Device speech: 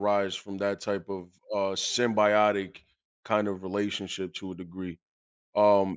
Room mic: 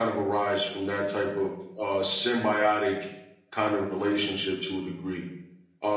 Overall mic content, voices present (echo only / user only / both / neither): echo only